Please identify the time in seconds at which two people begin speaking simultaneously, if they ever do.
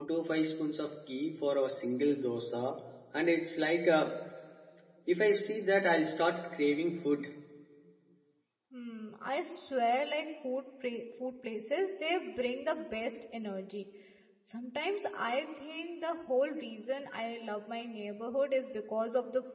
none

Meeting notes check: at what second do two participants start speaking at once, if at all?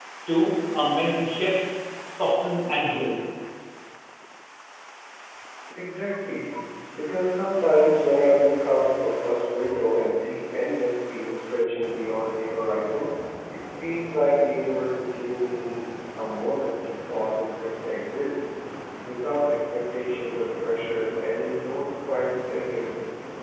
none

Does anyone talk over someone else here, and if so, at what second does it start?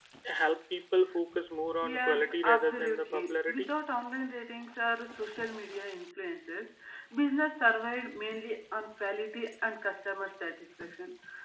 2 s

